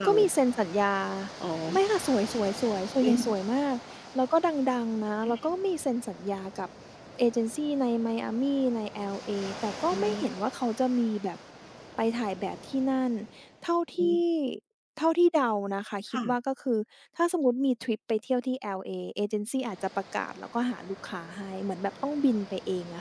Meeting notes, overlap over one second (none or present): none